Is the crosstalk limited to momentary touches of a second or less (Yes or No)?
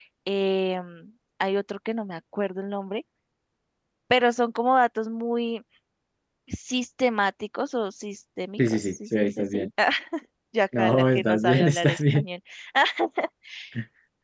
No